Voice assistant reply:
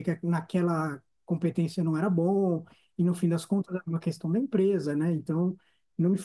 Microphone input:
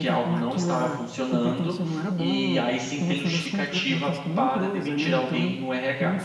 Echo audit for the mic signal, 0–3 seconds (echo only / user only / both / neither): both